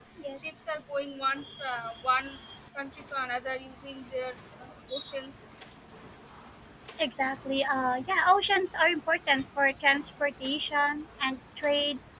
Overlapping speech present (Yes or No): No